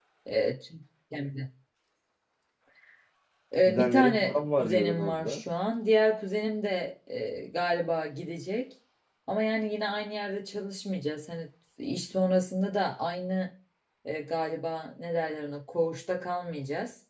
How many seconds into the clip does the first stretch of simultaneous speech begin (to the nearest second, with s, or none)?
4 s